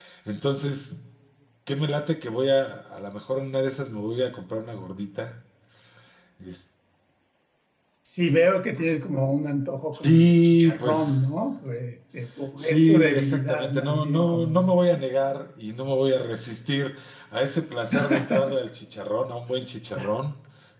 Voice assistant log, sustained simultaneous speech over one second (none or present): present